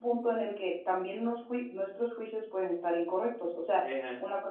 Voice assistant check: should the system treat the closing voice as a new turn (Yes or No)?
No